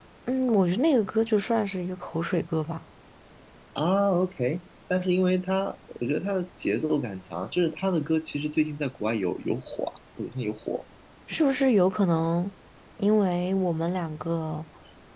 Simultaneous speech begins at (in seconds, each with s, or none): none